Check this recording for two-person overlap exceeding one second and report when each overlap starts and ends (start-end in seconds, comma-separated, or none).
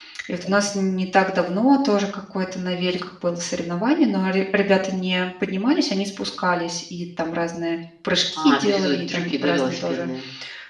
8.4-10.1